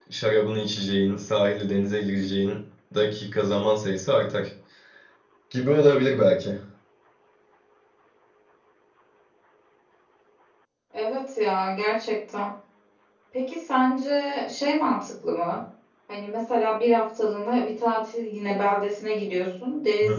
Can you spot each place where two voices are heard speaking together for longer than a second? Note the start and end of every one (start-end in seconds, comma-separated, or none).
none